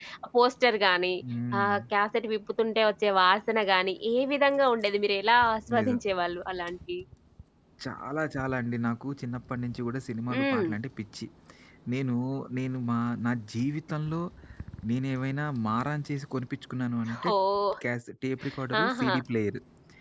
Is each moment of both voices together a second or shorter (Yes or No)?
Yes